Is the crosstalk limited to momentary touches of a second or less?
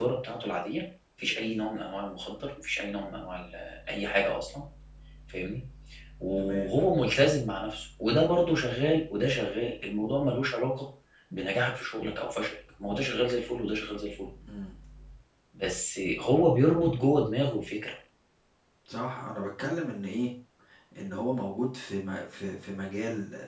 Yes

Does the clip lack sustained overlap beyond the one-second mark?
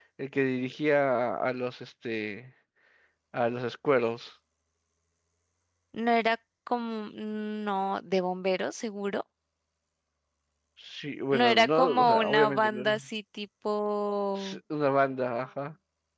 No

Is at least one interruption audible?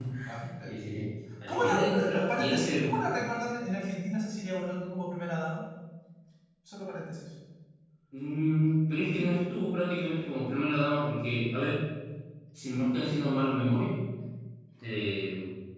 Yes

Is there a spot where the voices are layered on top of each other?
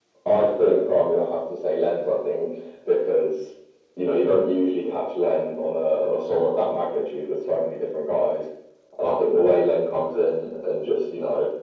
No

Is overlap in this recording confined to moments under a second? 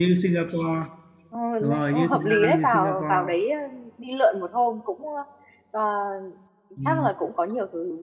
No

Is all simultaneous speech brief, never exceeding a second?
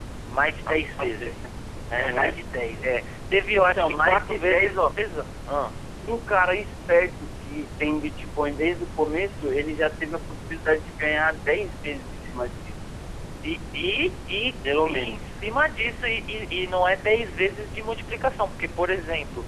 No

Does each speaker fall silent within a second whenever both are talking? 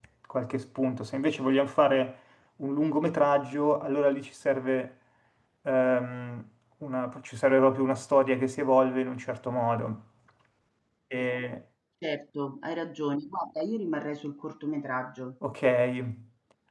Yes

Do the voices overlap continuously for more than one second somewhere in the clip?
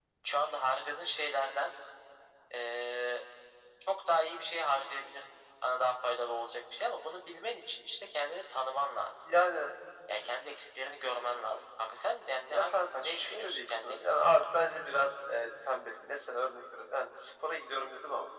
Yes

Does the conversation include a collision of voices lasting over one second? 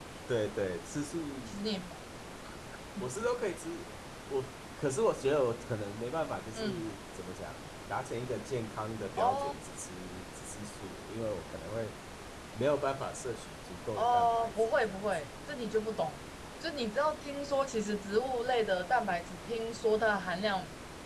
Yes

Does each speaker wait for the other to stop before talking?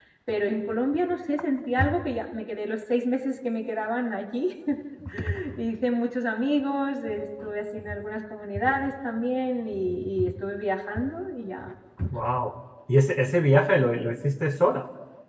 Yes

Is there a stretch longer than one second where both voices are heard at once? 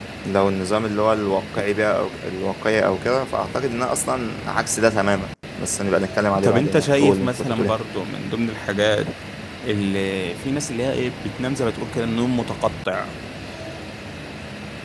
Yes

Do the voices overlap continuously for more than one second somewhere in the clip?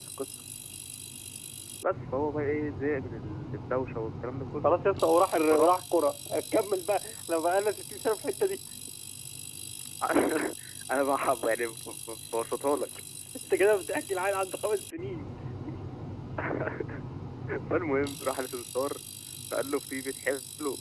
No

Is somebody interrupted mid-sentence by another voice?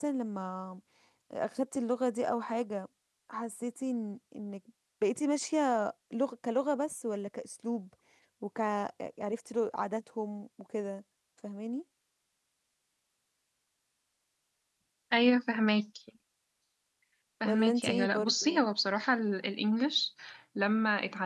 Yes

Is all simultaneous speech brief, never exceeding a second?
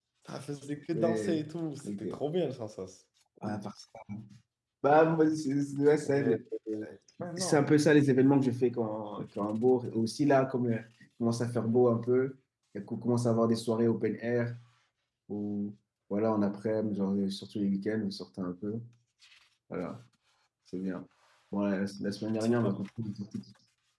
Yes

